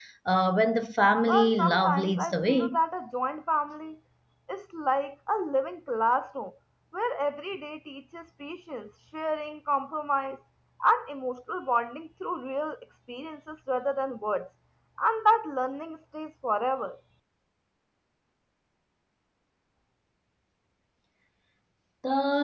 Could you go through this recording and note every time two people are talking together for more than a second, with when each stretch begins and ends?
1.3-2.8

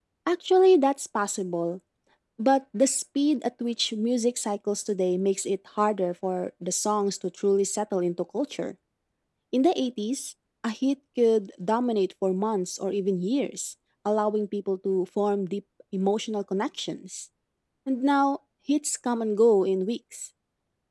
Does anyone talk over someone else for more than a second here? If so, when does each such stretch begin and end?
none

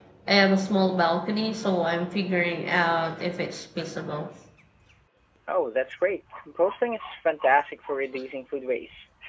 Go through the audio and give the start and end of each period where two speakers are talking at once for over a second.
none

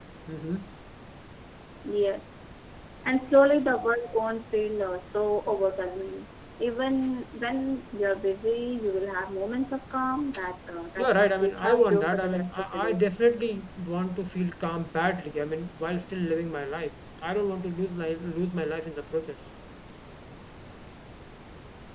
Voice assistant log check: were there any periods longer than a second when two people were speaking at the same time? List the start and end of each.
11.0-13.0

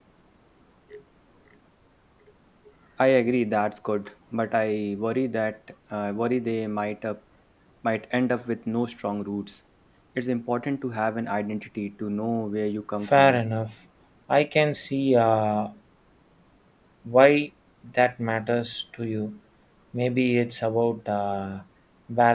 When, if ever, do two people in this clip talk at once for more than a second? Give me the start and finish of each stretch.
none

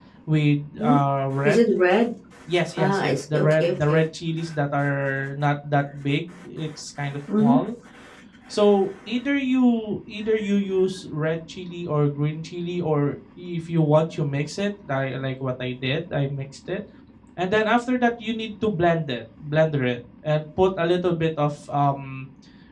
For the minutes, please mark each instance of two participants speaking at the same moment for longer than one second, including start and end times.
2.8-4.0

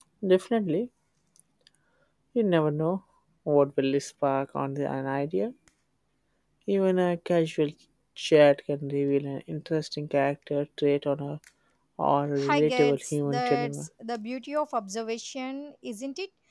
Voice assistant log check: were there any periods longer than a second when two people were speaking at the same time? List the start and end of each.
12.5-13.9

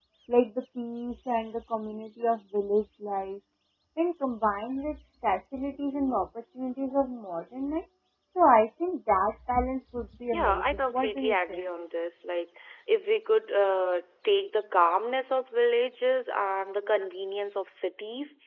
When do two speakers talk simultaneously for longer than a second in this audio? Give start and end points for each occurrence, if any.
10.3-11.6

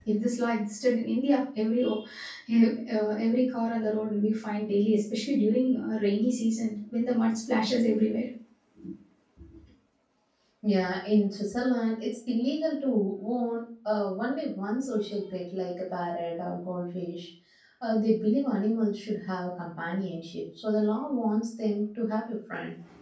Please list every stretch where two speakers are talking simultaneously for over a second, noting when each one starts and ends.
none

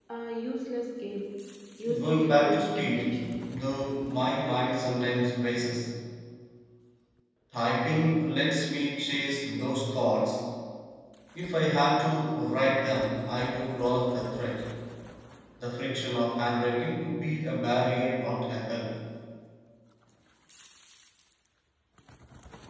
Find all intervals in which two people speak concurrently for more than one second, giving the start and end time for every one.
2.0-3.3

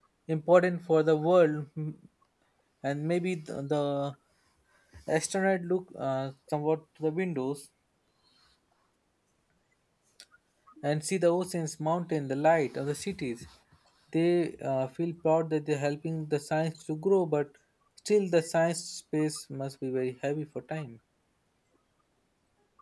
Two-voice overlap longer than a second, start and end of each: none

